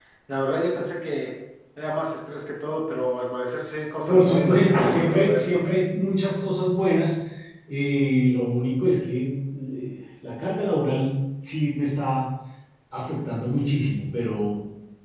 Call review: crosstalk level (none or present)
present